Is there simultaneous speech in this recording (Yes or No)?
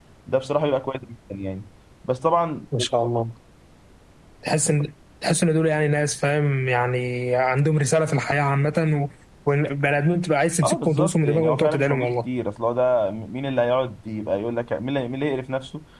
Yes